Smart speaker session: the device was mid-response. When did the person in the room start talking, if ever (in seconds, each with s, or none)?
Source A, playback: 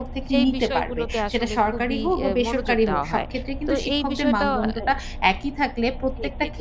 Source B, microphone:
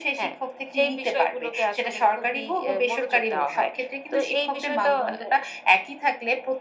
none